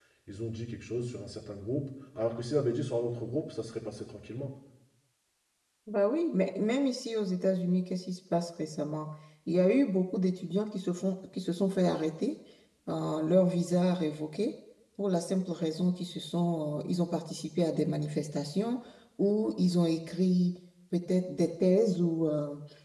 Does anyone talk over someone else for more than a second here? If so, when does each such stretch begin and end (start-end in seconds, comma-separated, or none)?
none